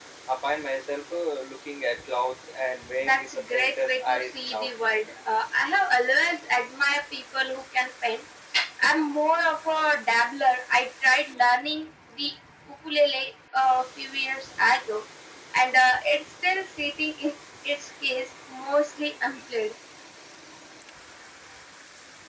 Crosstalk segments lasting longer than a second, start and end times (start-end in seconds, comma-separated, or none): 3.0-4.7